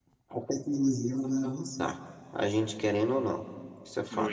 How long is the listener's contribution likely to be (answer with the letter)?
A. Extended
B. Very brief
A